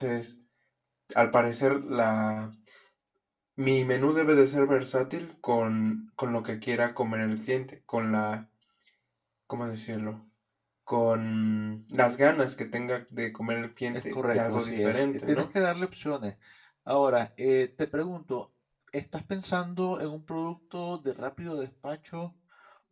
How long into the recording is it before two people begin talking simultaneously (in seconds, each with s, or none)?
13.9 s